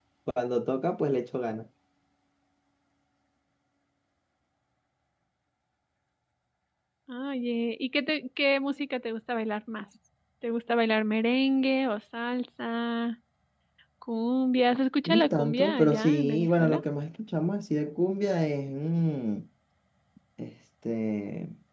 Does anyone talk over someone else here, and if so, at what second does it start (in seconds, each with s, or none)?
15.1 s